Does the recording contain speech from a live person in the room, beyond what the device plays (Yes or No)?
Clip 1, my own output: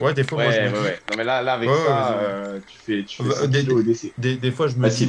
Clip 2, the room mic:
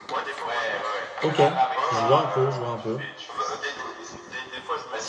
Yes